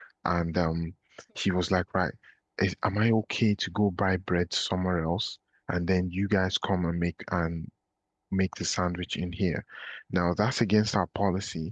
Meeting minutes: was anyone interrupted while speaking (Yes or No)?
No